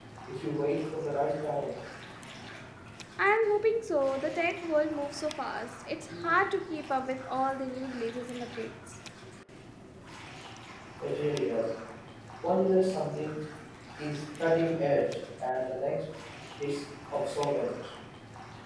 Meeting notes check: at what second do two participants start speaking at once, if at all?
none

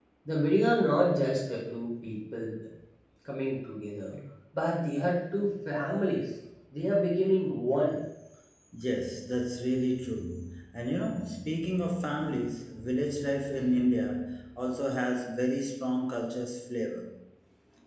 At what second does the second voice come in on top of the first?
none

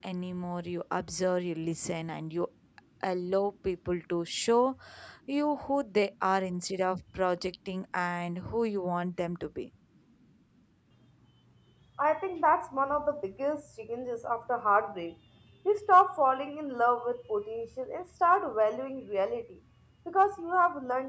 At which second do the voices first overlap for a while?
none

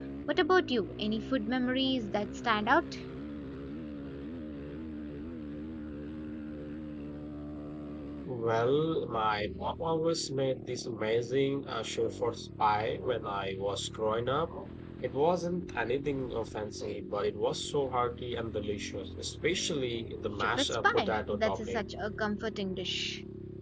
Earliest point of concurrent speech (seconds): 20.4 s

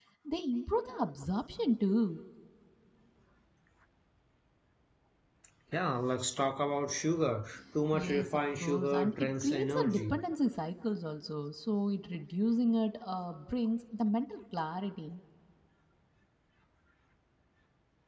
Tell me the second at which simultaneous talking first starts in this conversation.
7.9 s

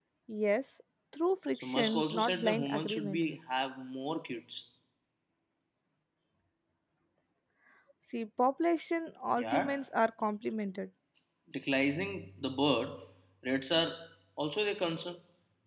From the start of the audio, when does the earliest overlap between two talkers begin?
1.5 s

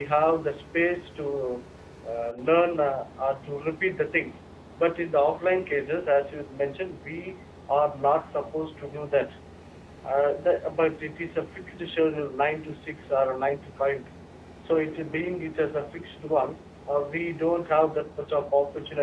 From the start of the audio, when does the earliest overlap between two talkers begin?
none

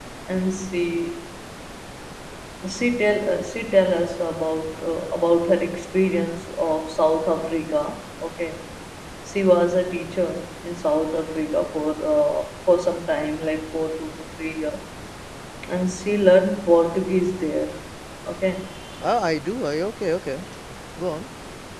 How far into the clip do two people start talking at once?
none

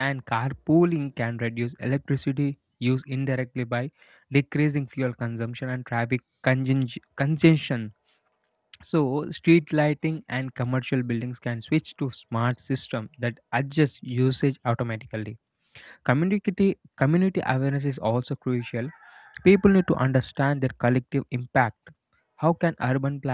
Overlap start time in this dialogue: none

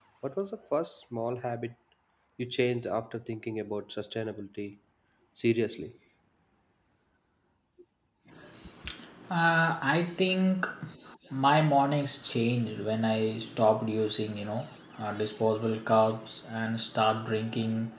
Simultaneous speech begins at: none

